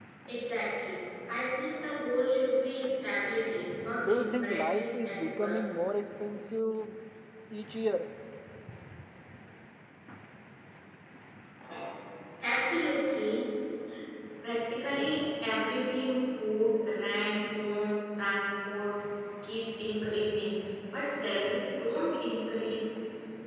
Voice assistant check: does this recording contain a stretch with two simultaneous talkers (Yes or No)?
Yes